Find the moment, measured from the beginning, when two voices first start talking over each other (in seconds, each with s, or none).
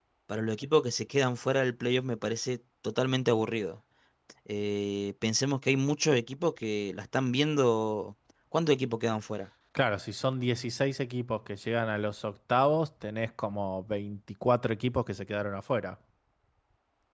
none